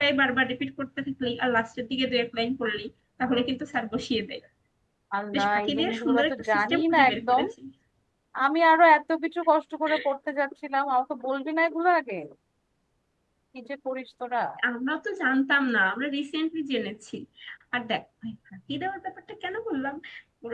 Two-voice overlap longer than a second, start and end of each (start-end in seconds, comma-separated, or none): 5.3-7.4